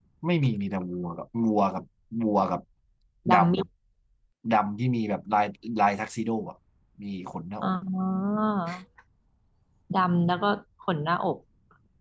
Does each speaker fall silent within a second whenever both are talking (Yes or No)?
Yes